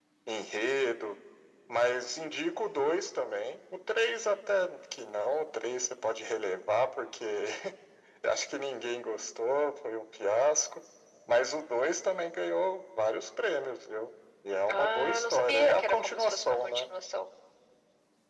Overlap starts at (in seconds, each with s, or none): 14.7 s